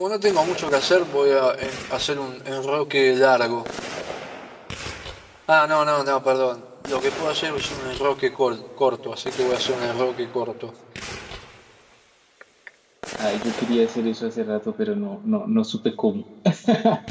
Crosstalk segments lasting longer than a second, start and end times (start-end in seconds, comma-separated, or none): none